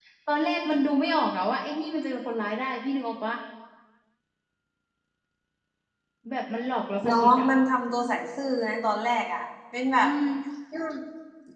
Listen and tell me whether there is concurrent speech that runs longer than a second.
No

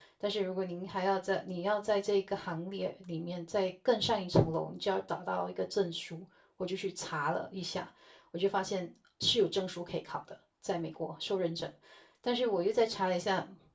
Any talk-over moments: No

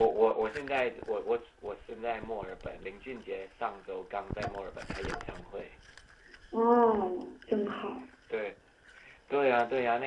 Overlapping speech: No

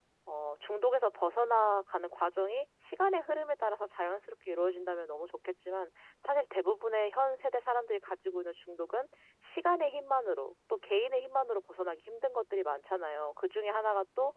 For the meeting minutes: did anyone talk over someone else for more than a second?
No

